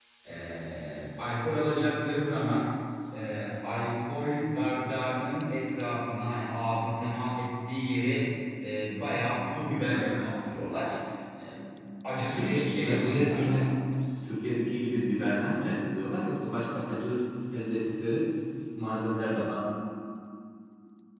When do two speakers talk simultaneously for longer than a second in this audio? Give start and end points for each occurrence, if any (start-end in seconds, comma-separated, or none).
12.2-13.7